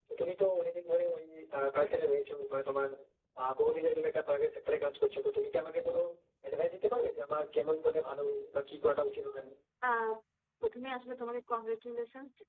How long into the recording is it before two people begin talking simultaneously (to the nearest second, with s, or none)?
none